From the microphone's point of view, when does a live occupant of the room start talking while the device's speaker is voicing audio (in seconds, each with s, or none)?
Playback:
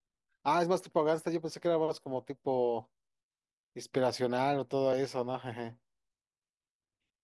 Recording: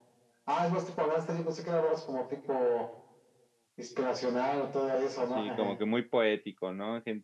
5.2 s